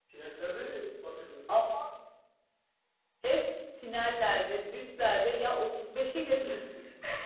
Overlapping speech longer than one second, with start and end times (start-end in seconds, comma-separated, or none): none